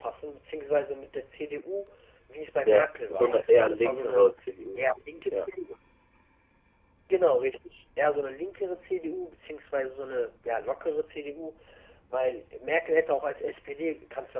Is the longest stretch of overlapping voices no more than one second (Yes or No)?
No